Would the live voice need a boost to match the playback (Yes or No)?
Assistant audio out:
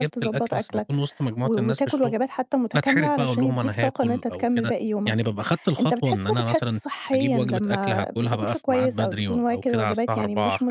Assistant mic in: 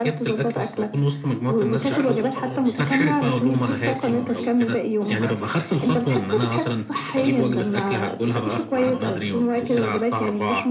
Yes